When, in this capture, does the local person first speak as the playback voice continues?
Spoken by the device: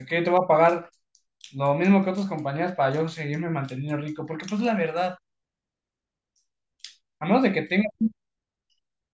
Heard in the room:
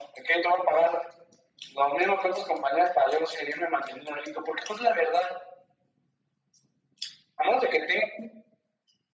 none

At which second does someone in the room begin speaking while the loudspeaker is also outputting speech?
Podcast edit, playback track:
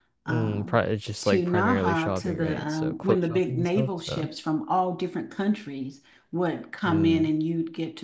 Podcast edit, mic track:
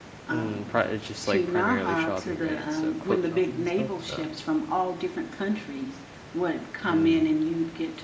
none

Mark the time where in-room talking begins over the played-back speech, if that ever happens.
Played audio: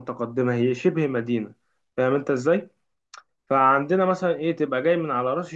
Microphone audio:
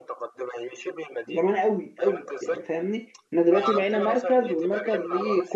1.3 s

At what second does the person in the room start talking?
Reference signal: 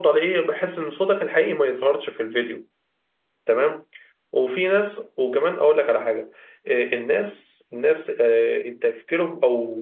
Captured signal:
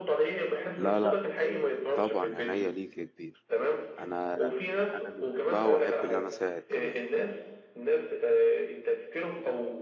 0.8 s

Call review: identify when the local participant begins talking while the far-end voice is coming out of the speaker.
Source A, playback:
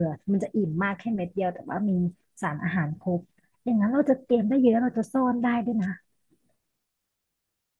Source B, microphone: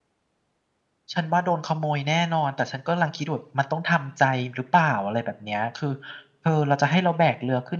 1.1 s

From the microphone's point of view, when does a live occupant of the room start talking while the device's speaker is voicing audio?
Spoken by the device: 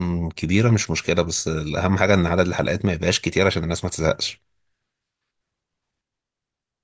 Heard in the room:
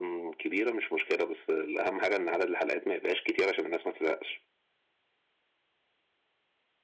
none

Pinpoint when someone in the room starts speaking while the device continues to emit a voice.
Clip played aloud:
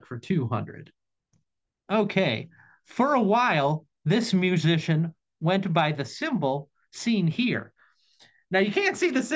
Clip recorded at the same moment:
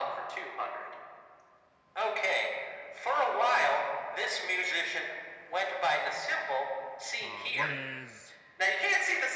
7.2 s

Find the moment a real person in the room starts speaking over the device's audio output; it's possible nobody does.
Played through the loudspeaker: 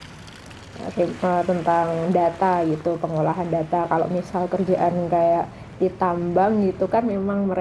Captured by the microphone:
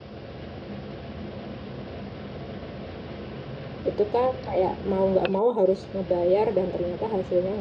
3.9 s

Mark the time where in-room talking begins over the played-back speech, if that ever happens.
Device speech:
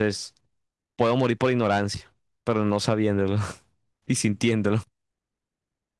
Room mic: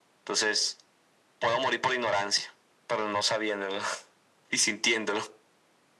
none

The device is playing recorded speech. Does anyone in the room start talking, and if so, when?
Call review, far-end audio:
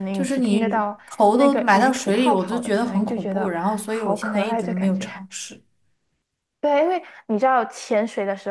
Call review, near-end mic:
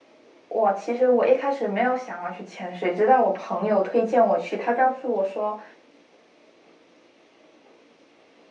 0.5 s

